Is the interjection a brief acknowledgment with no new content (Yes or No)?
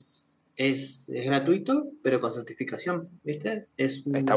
No